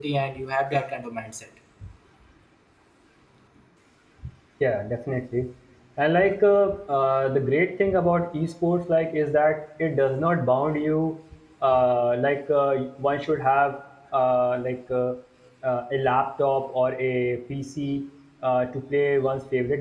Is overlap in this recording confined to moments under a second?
Yes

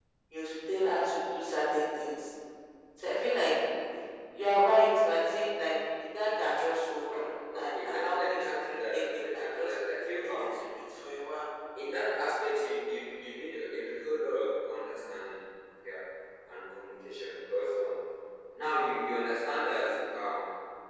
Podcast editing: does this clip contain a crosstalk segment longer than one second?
Yes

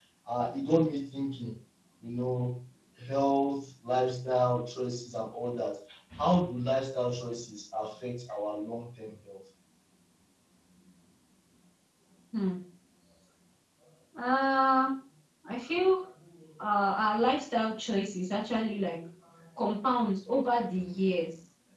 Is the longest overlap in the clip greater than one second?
No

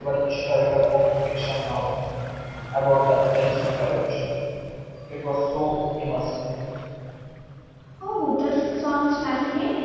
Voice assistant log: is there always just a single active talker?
Yes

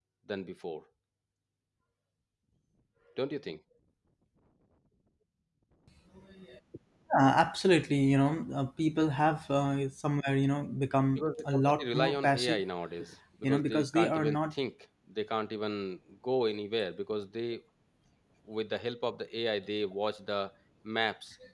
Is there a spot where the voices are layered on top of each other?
Yes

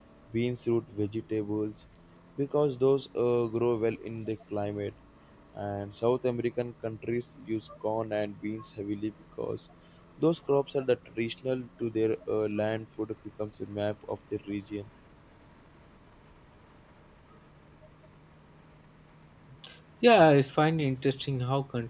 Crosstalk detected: No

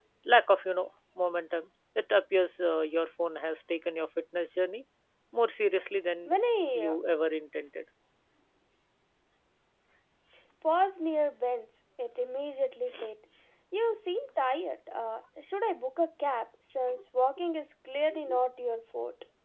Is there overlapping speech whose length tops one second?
No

